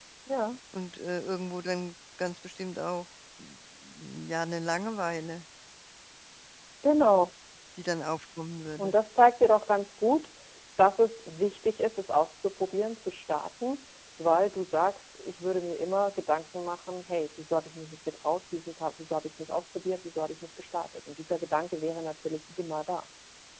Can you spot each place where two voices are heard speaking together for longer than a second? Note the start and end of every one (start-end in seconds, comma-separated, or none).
none